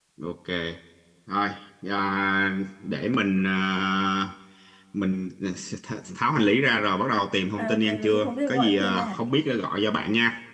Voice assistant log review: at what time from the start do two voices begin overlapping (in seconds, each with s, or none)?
7.6 s